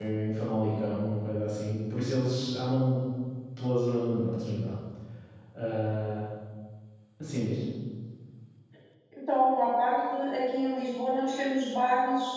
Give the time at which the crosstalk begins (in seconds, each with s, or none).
none